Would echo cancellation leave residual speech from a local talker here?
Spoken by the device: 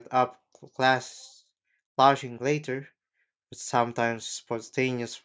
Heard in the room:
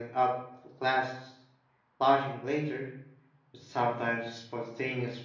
No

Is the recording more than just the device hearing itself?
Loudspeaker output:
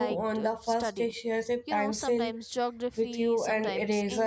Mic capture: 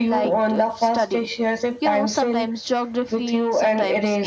No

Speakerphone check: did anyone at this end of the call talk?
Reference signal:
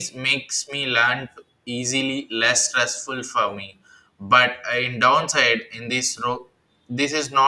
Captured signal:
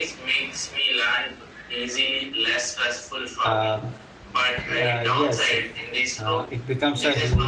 Yes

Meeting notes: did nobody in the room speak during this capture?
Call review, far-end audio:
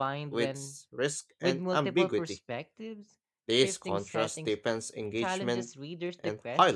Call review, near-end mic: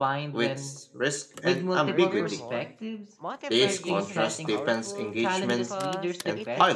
No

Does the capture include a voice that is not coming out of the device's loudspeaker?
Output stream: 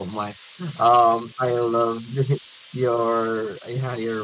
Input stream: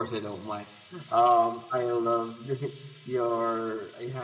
No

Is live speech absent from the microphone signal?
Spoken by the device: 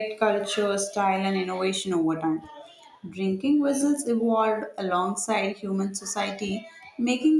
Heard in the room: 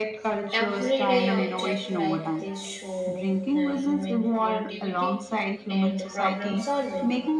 No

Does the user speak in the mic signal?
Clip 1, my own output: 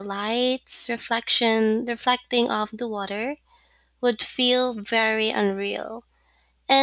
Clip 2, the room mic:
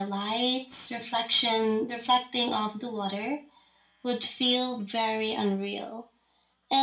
No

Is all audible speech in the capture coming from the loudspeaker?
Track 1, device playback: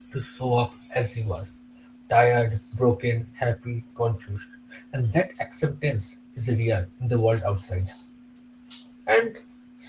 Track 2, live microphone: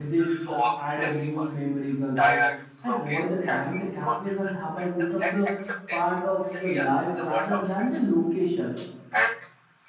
No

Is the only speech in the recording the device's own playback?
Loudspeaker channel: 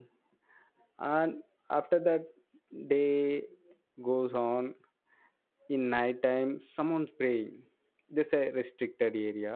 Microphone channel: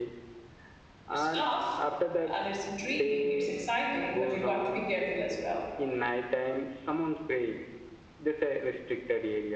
No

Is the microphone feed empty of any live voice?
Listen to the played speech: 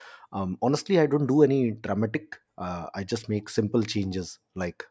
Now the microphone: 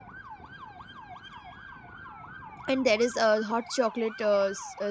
No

